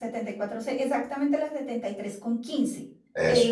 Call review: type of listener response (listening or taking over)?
listening